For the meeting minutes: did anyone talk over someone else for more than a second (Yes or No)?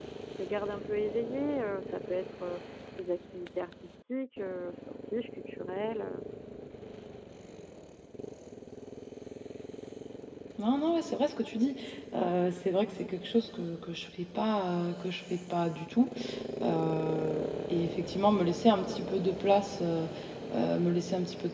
No